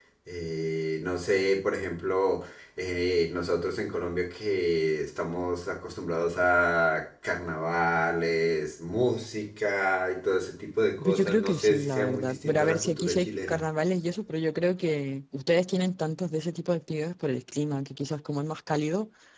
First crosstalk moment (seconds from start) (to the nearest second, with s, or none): 11 s